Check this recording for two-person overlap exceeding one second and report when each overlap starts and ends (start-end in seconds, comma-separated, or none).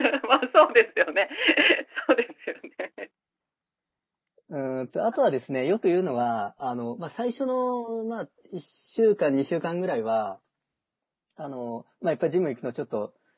none